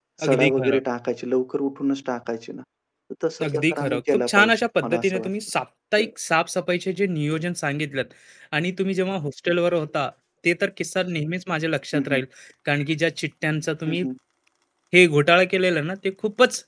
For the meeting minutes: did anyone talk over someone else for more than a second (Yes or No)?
Yes